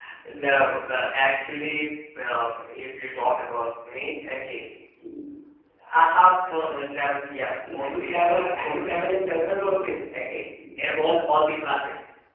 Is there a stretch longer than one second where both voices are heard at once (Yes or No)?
Yes